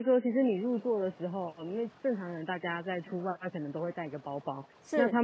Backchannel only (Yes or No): Yes